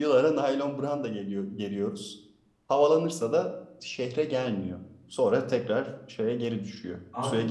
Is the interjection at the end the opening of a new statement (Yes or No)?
Yes